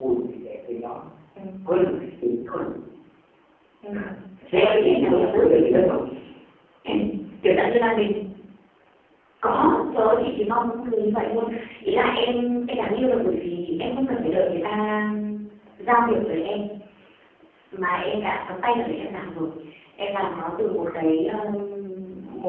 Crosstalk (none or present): present